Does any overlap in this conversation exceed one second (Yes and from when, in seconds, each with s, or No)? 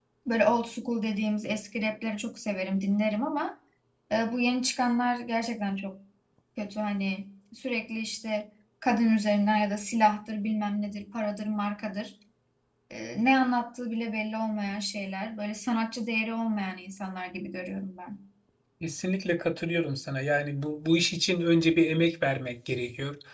No